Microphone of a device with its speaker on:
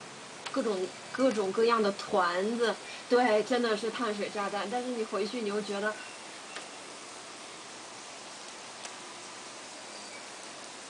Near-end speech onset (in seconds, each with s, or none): 0.5 s